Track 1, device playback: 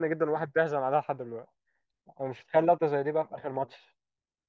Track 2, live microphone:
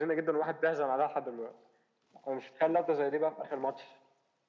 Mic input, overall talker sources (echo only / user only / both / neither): echo only